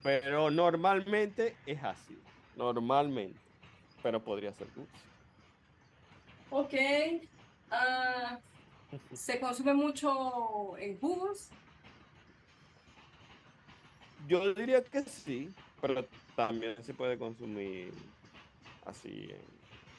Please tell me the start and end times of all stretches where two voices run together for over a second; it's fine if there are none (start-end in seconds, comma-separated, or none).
none